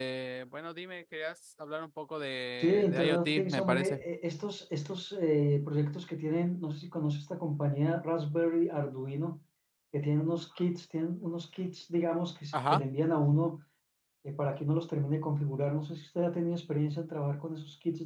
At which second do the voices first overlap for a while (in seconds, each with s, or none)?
2.6 s